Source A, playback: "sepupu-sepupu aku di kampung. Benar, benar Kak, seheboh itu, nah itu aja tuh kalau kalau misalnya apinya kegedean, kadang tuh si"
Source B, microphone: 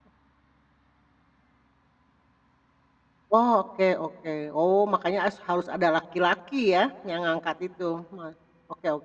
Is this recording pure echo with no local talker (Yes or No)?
No